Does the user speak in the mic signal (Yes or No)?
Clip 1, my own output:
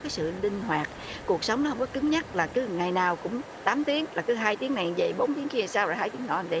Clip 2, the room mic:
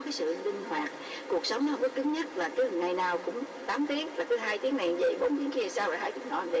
No